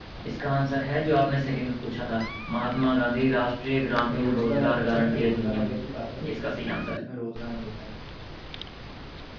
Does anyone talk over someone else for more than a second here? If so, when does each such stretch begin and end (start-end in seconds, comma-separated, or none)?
4.2-5.7